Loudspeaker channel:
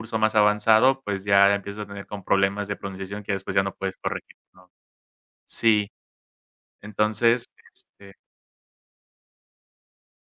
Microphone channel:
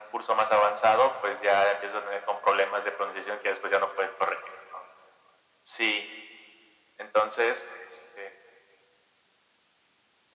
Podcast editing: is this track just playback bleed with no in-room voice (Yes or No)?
Yes